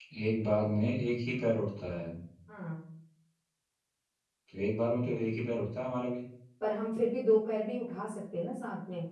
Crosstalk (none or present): none